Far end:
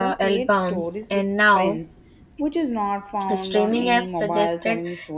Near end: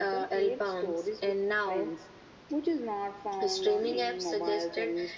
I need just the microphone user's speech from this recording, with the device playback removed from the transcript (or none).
none